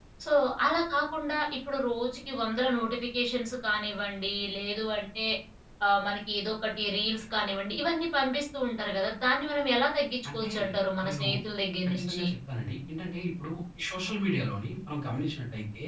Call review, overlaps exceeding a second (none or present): none